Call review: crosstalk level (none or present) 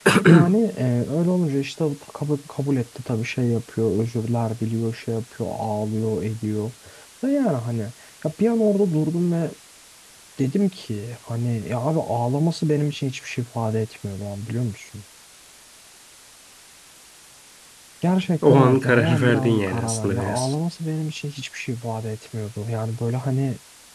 present